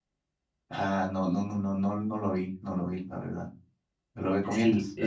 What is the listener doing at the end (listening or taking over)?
taking over